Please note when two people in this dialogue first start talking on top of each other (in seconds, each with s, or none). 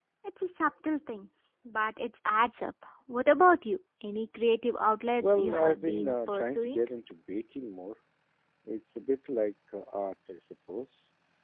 5.2 s